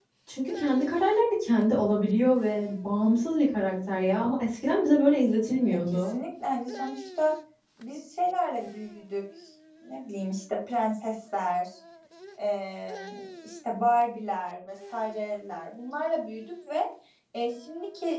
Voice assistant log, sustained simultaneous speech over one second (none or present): none